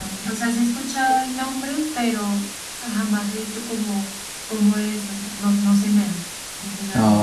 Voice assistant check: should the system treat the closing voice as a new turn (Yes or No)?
Yes